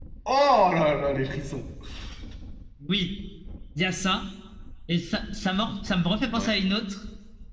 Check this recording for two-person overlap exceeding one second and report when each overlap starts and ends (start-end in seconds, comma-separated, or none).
none